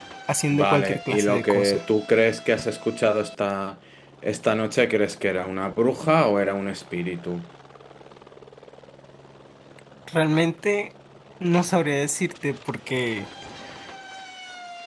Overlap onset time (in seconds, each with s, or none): 0.5 s